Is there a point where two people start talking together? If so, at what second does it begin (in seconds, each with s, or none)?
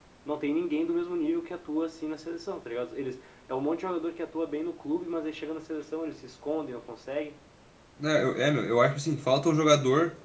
none